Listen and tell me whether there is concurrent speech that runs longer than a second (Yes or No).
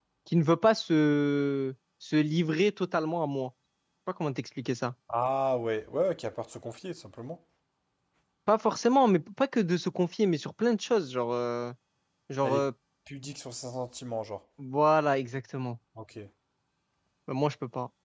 No